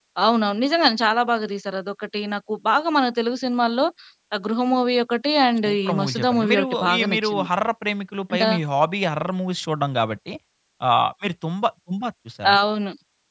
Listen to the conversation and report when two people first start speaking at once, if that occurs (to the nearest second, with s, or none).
6 s